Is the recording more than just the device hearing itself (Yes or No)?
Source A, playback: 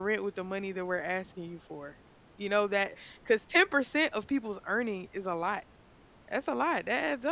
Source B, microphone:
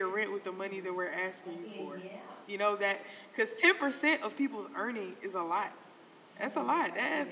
Yes